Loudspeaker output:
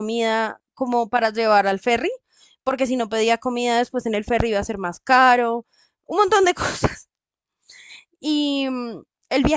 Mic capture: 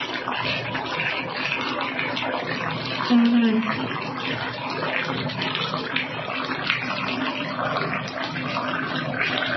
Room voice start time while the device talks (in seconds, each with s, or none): 3.1 s